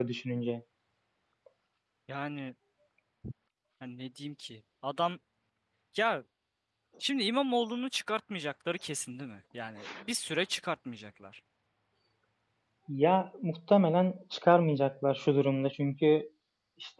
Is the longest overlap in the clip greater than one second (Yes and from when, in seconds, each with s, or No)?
No